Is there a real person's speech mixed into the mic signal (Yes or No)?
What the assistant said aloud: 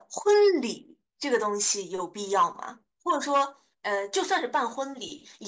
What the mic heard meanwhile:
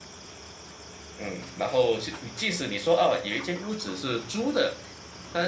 Yes